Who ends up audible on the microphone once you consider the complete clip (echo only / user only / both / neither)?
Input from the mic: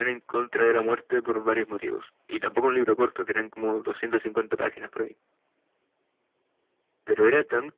echo only